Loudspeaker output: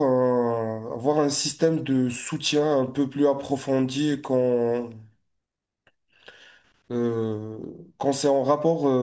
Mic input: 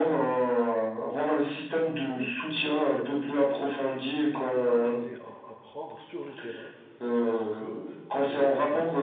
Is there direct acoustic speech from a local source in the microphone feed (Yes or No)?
Yes